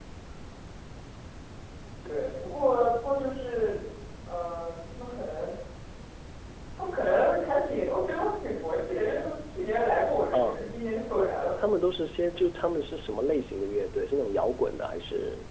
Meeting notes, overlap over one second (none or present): none